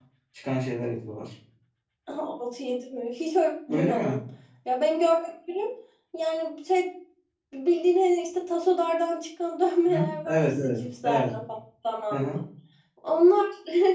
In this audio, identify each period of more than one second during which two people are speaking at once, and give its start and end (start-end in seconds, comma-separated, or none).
9.9-11.3